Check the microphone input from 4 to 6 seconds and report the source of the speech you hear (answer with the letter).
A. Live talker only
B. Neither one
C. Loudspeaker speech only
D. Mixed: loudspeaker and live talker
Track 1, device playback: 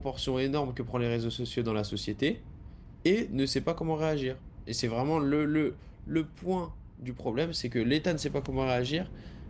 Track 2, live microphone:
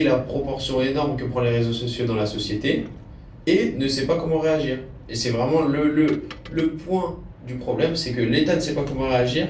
C